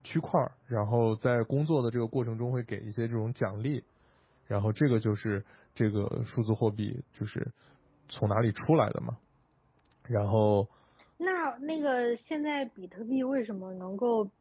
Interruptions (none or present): none